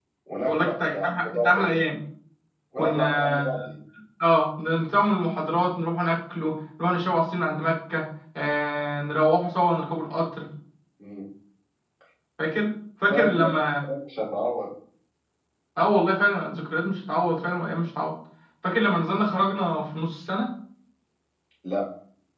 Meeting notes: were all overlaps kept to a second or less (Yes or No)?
No